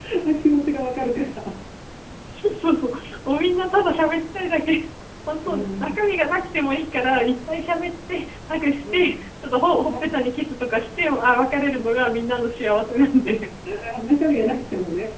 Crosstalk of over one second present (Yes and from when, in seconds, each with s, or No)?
No